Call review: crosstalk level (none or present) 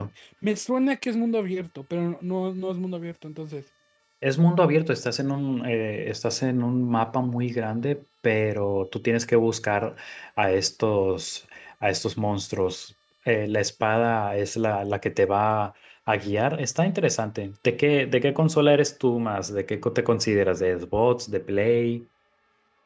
none